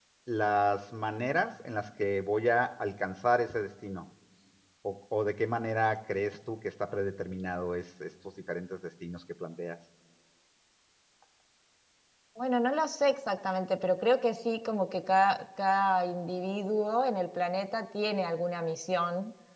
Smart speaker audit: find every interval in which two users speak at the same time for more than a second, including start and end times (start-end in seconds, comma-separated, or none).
none